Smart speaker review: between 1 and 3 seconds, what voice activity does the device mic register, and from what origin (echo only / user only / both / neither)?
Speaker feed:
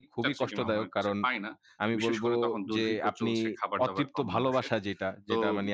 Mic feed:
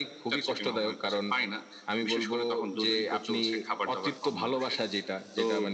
echo only